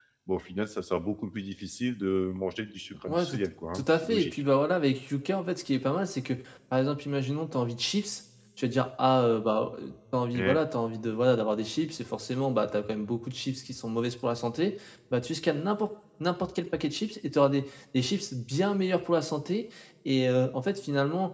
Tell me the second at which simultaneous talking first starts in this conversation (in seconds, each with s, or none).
3.1 s